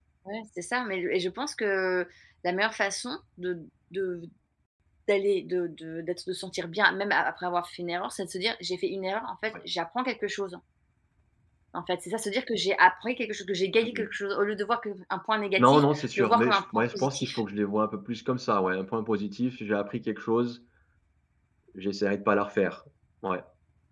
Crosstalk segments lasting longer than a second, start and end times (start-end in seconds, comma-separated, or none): 15.6-17.4